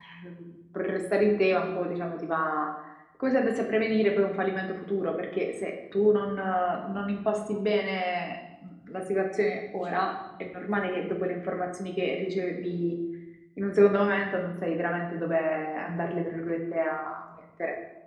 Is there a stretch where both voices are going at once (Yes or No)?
No